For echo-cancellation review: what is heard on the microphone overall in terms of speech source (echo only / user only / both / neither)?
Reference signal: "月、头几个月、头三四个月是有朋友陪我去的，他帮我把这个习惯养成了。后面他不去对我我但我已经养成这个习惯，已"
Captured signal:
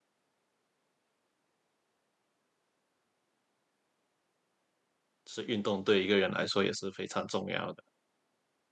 user only